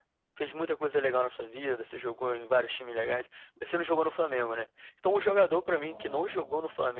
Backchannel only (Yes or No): Yes